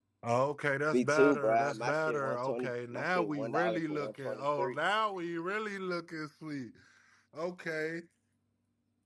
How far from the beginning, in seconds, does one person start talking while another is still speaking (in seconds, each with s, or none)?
0.9 s